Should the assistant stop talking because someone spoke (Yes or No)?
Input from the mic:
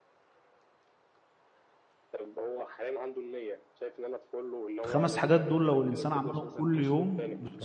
Yes